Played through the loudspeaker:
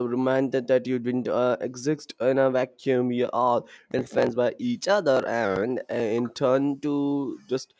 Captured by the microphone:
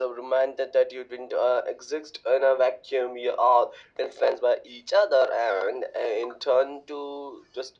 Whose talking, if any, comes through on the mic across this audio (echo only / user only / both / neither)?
echo only